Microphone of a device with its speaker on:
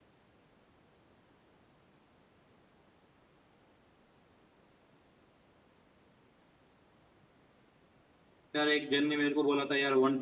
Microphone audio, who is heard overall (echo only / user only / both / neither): user only